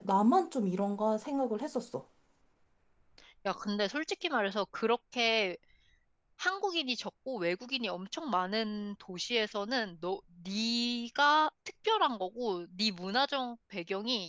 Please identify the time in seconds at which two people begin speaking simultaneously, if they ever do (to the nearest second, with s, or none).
none